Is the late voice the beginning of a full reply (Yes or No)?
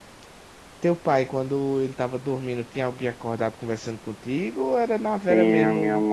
Yes